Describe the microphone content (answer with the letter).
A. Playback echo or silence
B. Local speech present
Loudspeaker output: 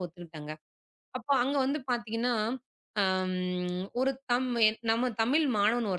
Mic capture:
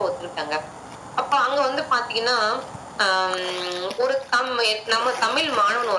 A